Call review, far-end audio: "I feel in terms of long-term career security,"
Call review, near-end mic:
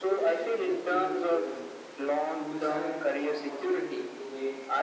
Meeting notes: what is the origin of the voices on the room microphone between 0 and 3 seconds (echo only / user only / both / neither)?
both